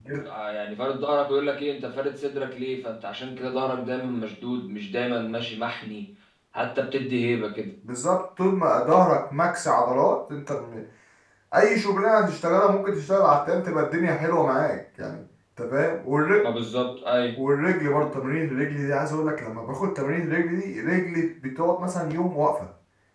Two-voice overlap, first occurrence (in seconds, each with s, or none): none